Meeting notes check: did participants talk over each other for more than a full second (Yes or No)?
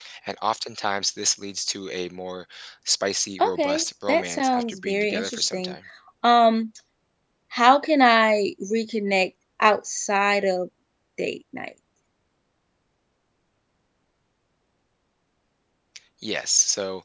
Yes